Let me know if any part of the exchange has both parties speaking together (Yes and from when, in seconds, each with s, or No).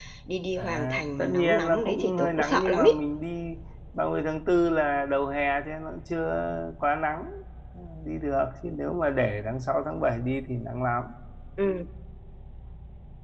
Yes, from 0.6 s